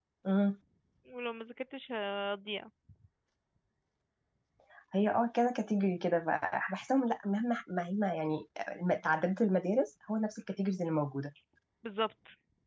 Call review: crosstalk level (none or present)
none